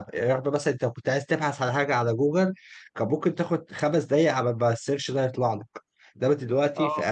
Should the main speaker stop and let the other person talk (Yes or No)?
No